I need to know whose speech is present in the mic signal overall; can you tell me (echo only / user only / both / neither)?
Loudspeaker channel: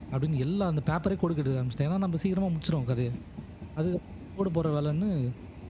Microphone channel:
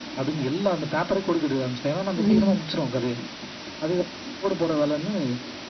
both